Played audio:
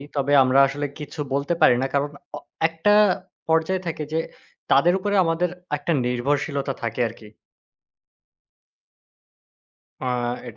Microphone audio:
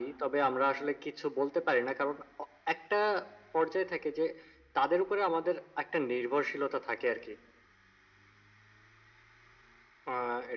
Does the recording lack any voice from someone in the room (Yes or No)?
Yes